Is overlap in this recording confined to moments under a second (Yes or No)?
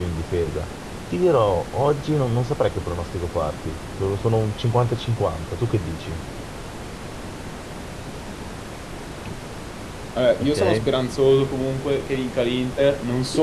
Yes